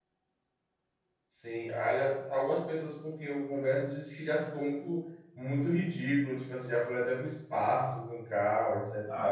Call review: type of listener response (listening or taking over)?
taking over